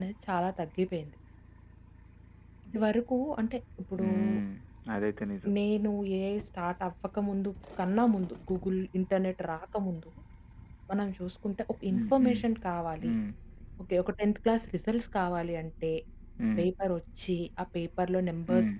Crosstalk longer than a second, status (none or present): none